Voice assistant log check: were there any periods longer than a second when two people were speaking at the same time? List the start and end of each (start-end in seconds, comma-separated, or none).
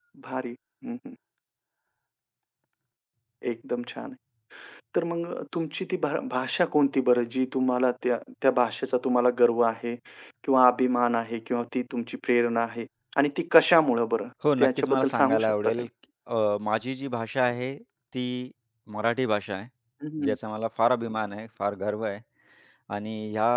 14.6-15.8